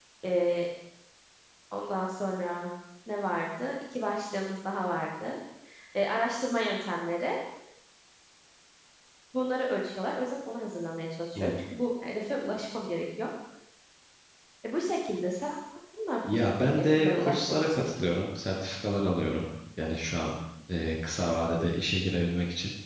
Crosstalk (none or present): present